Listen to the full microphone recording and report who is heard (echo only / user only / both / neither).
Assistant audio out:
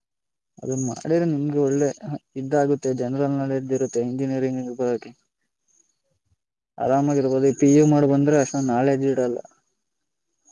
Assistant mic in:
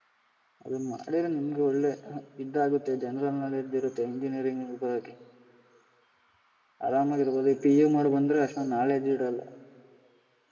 echo only